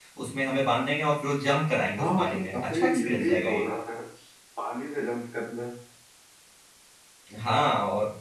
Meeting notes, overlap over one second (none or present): present